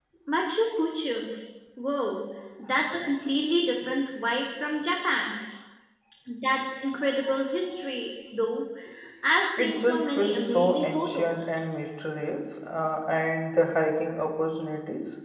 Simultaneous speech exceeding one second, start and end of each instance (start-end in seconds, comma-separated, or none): 9.6-11.6